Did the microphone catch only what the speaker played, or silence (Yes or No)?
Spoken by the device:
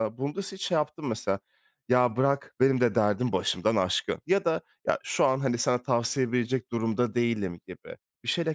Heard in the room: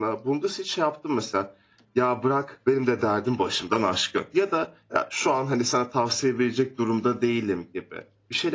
Yes